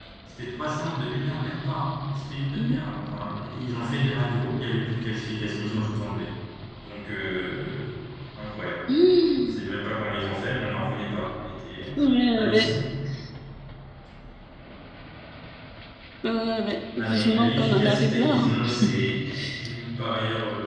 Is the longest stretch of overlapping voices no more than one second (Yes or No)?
No